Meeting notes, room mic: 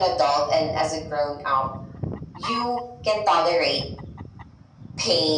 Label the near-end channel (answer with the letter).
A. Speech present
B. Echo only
B